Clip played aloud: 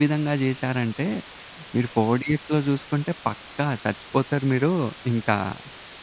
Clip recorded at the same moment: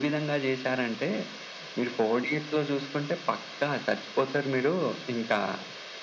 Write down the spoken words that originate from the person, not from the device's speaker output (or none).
none